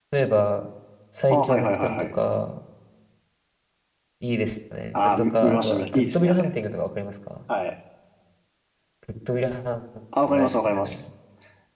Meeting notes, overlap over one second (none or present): present